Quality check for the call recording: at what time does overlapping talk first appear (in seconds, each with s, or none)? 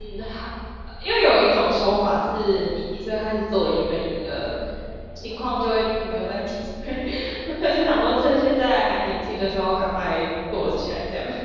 none